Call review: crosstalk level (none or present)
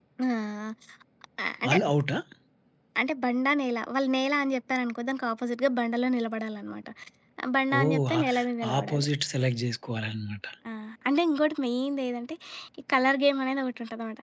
present